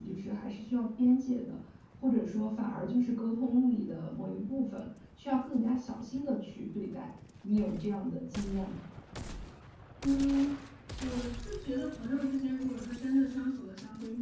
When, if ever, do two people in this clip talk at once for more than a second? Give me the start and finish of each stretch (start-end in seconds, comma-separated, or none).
none